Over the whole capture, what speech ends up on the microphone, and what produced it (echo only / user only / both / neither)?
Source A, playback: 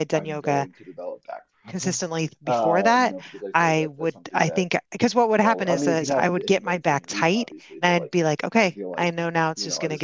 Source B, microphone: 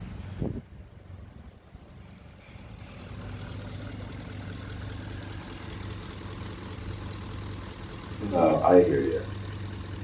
user only